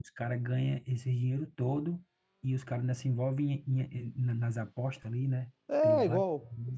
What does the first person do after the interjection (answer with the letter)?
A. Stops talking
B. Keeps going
A